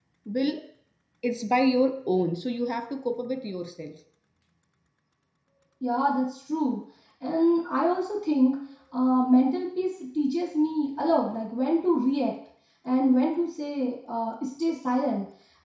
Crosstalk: none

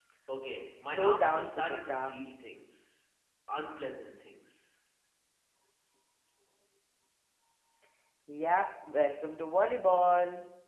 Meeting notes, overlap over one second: present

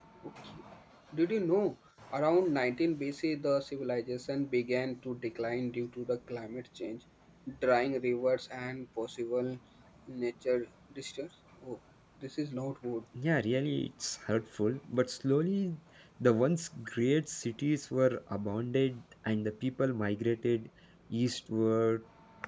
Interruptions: none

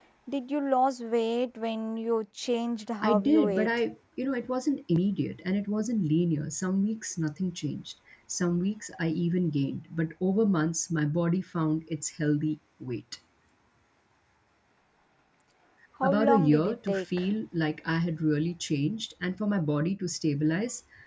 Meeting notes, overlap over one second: present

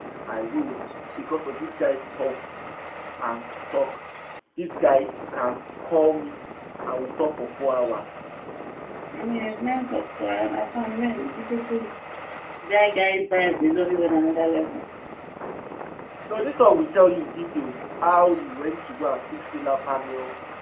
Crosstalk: none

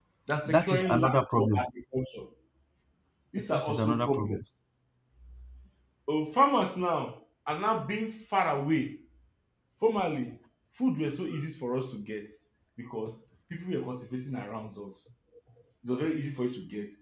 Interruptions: present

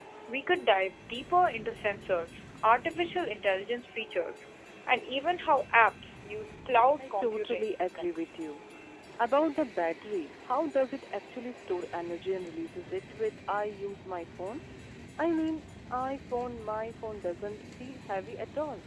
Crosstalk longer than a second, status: present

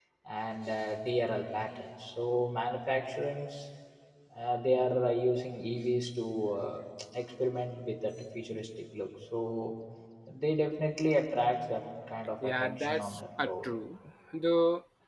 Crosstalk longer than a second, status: present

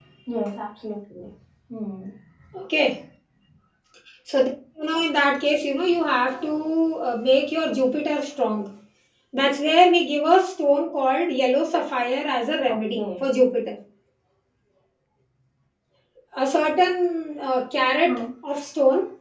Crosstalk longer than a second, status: none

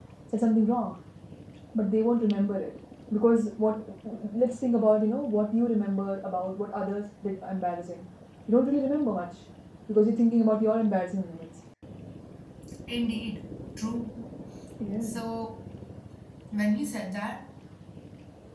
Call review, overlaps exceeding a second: none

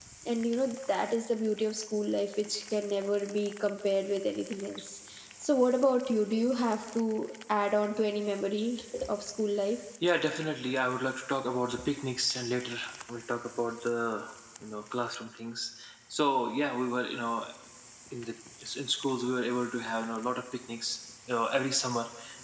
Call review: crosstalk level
none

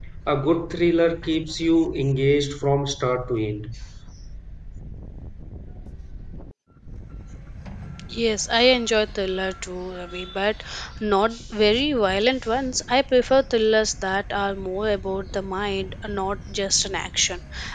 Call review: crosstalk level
none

